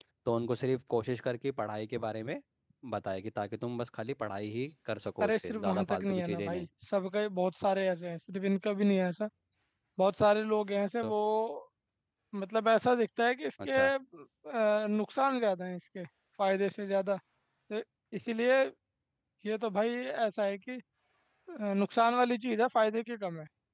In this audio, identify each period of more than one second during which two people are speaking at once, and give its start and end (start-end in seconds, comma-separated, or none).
5.2-6.7